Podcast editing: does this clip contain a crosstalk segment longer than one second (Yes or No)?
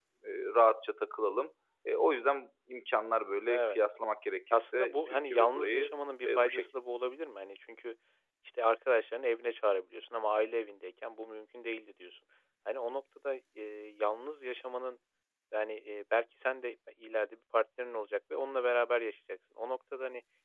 Yes